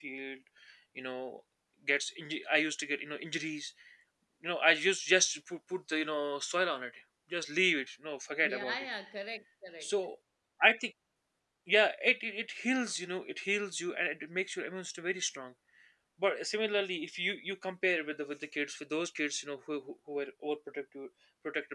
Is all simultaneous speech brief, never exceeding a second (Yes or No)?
Yes